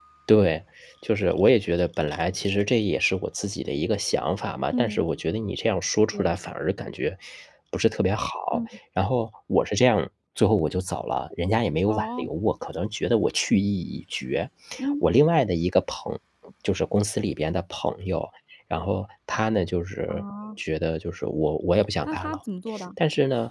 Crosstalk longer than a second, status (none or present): none